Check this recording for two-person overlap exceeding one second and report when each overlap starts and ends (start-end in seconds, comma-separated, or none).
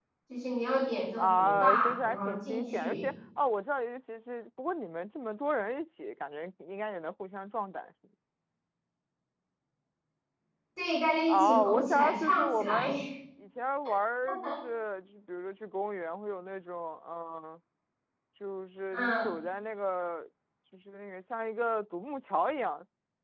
1.2-3.1, 11.3-12.9